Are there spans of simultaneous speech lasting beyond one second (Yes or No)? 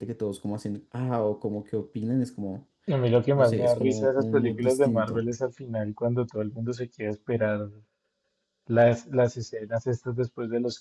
Yes